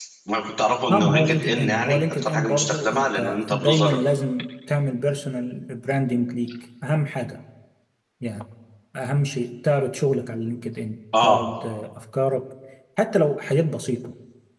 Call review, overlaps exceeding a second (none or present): present